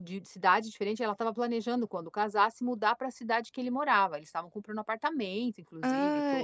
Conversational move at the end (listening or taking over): taking over